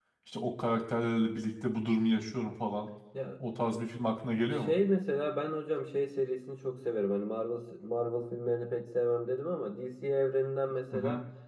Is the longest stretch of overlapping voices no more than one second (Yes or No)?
Yes